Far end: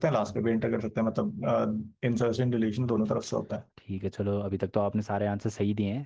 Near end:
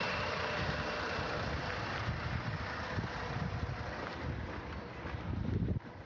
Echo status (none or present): none